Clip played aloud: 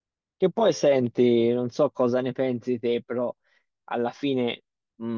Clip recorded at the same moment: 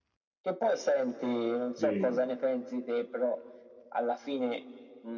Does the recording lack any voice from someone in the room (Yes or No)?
No